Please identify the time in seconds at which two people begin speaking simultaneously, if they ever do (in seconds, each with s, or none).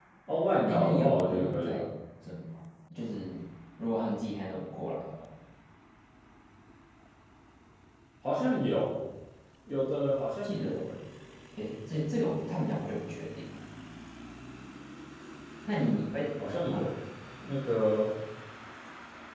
0.6 s